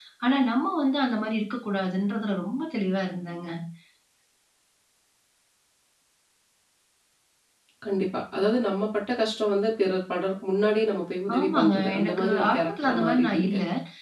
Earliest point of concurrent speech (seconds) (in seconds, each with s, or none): 11.3 s